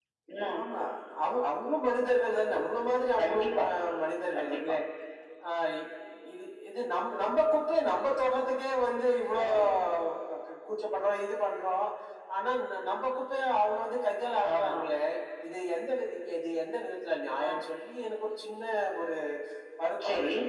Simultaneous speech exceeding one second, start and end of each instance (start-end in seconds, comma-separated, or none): none